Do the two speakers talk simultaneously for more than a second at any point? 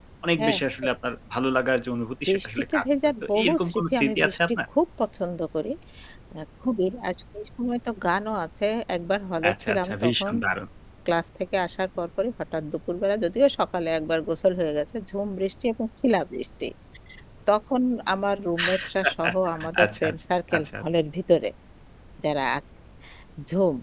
Yes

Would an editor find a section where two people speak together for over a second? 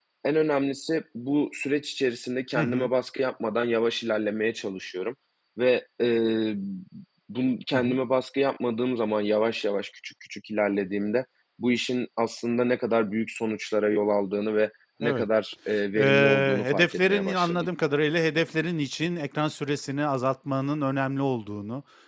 Yes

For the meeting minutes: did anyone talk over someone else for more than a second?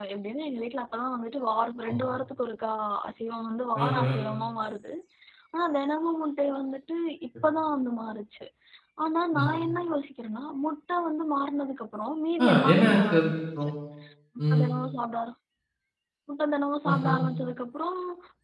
Yes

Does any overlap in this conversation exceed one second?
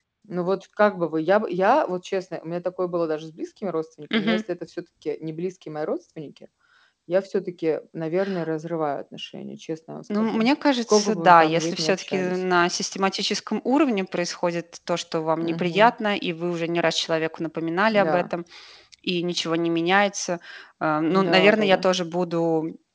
Yes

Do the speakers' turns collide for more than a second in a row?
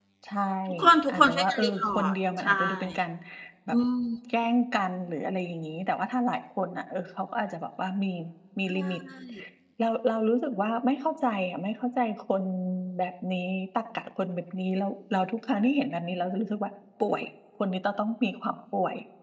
Yes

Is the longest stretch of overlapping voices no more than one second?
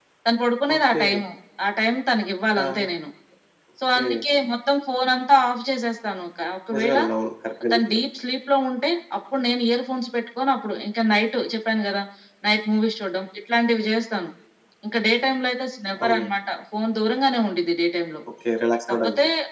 Yes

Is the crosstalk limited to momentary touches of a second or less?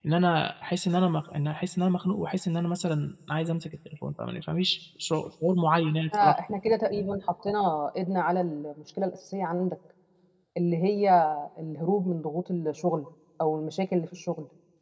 Yes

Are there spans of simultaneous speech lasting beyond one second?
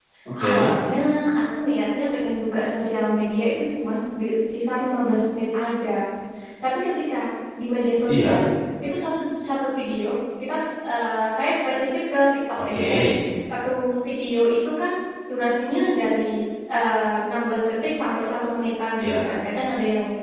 No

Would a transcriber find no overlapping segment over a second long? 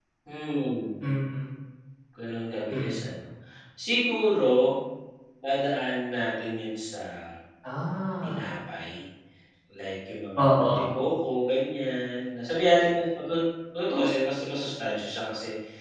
Yes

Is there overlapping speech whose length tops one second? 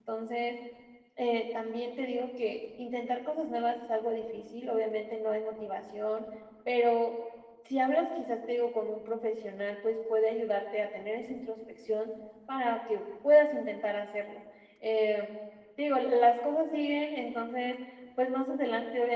No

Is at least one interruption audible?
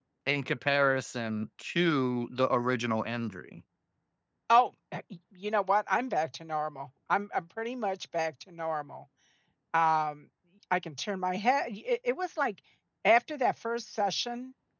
No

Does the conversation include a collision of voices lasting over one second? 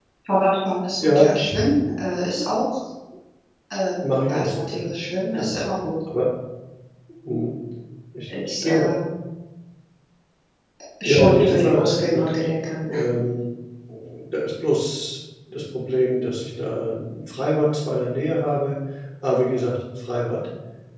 Yes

